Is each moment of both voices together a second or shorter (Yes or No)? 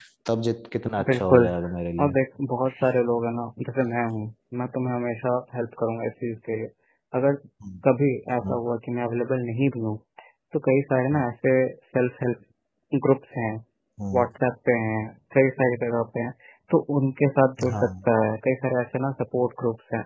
Yes